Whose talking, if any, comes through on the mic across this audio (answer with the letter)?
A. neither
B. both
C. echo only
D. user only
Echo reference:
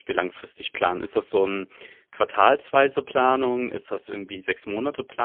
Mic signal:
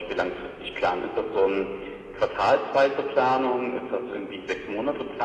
C